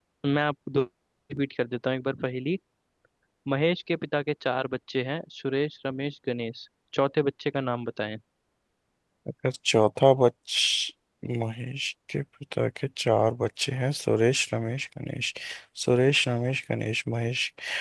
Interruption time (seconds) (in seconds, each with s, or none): none